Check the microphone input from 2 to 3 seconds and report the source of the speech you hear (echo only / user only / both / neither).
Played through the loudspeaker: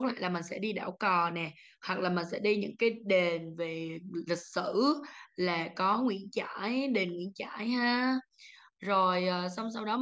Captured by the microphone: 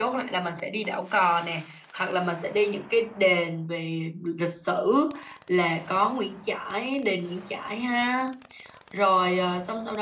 echo only